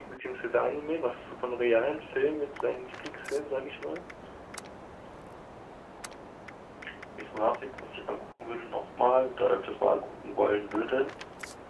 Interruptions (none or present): none